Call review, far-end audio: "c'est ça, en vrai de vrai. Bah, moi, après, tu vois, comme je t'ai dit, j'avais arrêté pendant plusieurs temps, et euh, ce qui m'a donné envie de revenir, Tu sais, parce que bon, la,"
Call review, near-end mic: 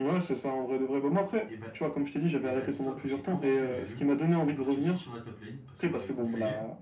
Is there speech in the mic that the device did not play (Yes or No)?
Yes